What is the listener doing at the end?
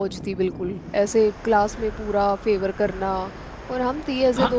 taking over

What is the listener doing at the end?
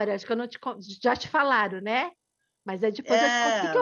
listening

